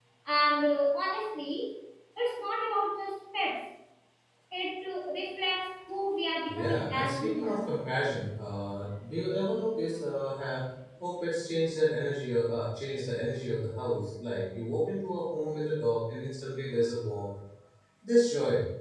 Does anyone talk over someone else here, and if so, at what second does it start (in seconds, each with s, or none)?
6.5 s